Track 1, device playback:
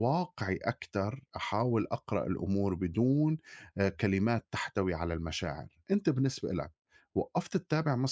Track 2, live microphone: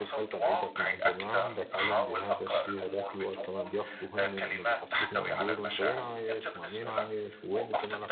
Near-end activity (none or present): present